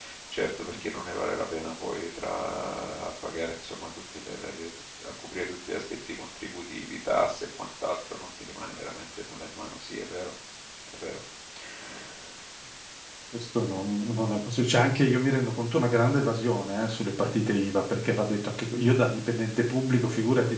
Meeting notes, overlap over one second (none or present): none